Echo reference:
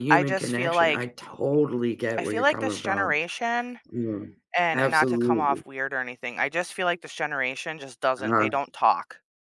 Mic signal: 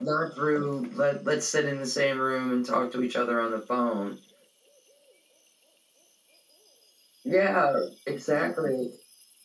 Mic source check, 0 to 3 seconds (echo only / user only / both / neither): user only